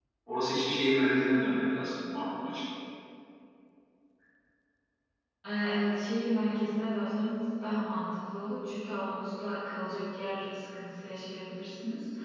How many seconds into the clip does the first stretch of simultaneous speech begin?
none

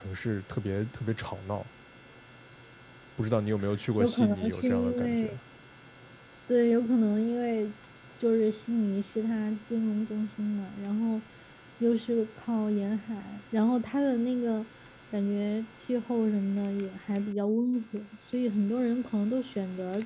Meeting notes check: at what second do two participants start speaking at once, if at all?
4 s

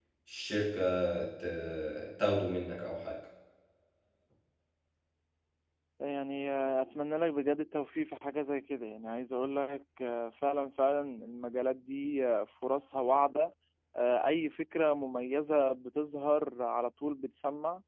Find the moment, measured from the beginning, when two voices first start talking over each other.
none

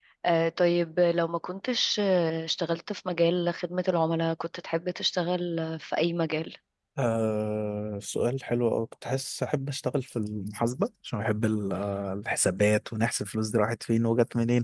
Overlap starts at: none

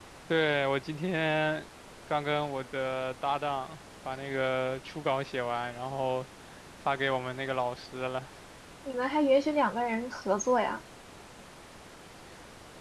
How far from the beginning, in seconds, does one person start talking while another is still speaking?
none

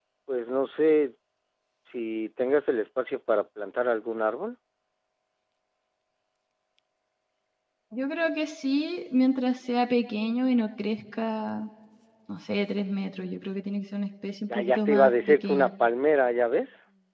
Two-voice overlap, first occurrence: 15 s

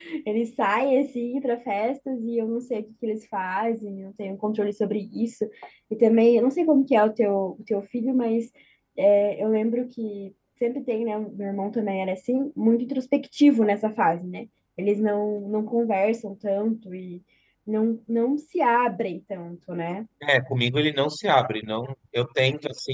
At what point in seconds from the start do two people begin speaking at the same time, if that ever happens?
none

